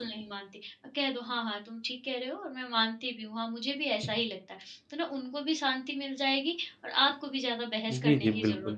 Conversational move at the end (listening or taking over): taking over